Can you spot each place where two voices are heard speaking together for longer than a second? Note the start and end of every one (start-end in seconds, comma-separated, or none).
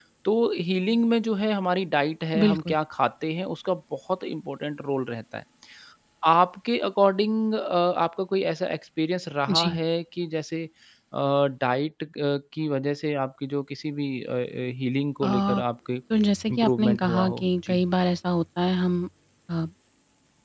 16.5-17.8